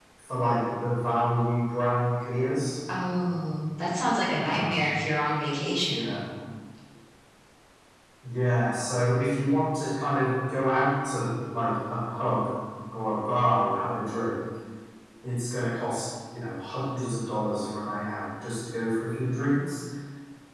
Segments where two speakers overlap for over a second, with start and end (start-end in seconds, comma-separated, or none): none